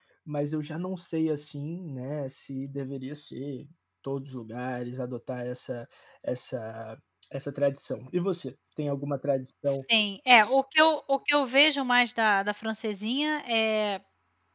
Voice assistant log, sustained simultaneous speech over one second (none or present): none